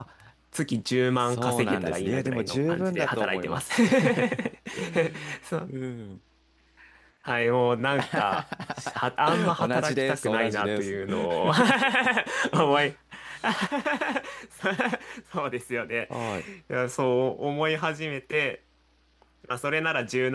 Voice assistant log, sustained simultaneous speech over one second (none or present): present